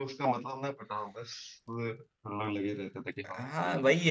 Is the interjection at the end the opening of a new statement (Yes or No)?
Yes